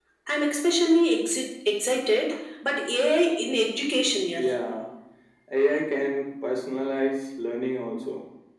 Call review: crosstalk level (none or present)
none